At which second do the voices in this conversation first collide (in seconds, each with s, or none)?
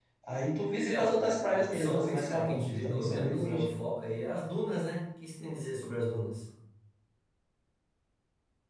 0.8 s